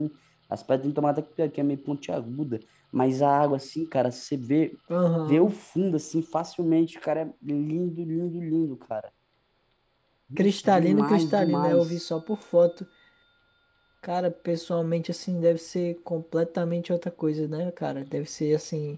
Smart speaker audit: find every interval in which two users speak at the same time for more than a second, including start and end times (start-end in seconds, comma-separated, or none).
10.4-11.9